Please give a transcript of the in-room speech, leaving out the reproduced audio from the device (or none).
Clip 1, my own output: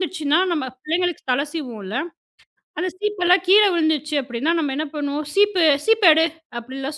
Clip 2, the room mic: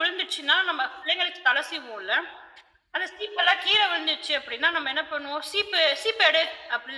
none